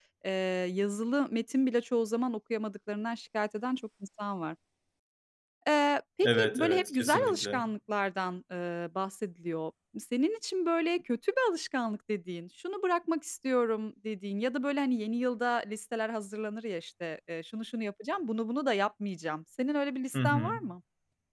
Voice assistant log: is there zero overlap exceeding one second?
No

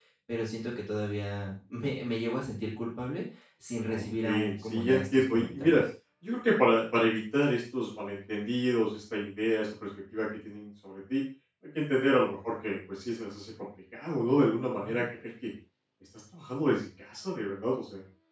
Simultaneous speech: Yes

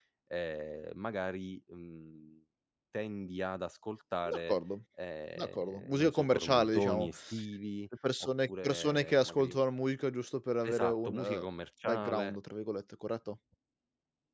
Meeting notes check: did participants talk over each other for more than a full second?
Yes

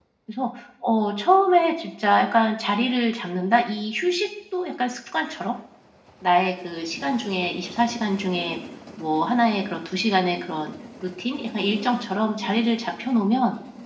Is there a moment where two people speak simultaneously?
No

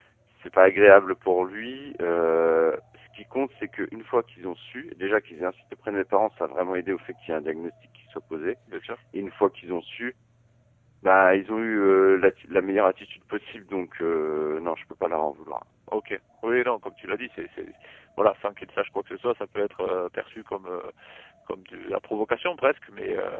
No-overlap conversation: Yes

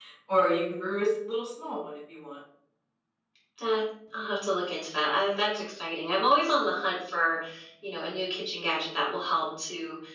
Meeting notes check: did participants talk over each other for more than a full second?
No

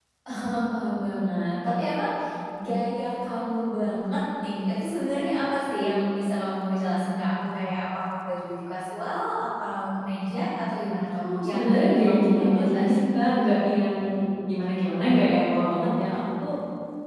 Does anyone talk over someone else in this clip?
Yes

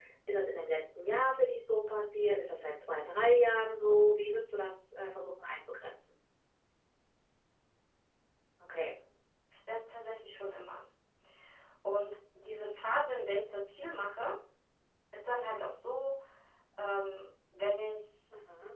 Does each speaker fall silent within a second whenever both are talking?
Yes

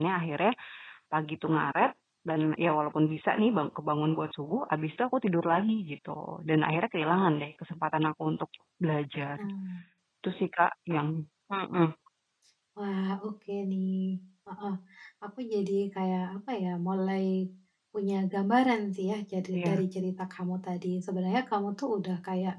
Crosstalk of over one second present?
No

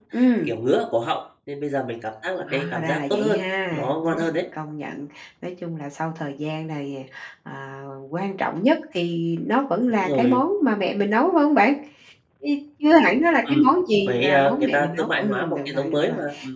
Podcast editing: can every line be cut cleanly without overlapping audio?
No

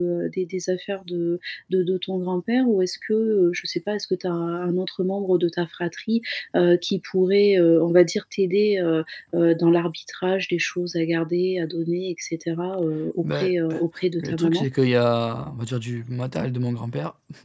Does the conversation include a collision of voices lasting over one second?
No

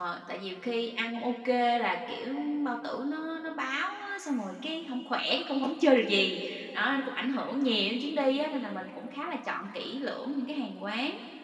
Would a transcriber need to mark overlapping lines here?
No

